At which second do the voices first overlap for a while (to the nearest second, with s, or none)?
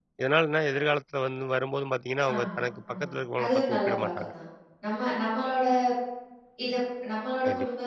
2 s